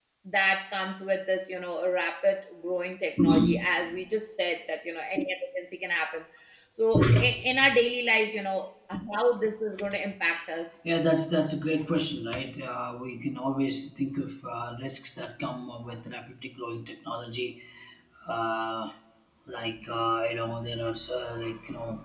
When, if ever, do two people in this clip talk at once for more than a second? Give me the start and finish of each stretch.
none

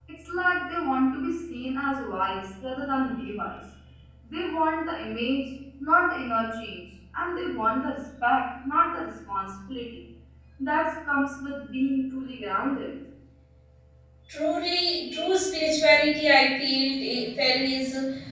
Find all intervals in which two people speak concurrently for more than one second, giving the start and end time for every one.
none

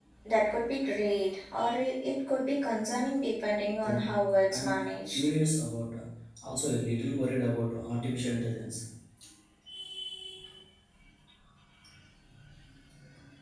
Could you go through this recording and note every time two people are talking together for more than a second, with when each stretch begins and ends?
3.8-5.3

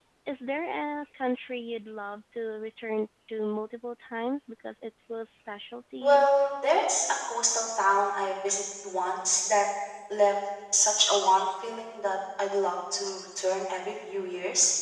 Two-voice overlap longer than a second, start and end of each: none

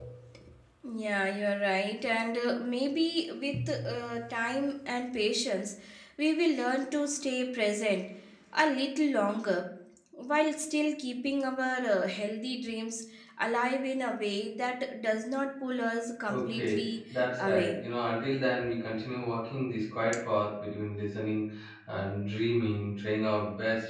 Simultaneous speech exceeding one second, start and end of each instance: 16.3-17.8

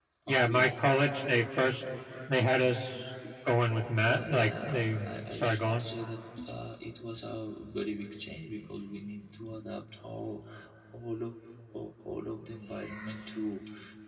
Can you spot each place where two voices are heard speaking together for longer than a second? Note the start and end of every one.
4.0-5.8

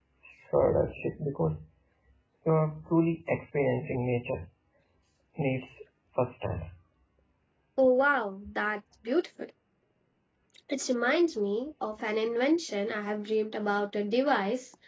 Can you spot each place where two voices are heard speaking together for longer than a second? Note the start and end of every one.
none

